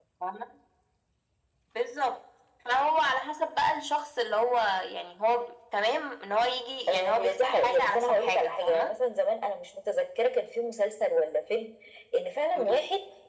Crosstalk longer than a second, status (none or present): present